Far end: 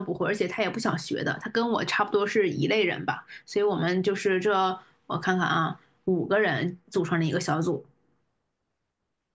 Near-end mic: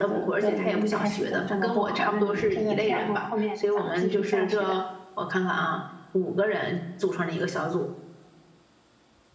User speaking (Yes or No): Yes